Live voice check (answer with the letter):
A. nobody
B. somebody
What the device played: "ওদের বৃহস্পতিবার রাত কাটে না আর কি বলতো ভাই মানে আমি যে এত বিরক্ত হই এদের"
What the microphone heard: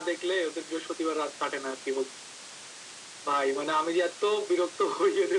A